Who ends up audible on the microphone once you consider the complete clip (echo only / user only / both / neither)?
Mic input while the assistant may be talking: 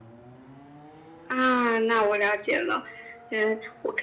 echo only